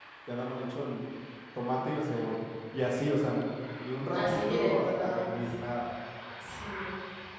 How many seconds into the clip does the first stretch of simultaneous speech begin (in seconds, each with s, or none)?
4.1 s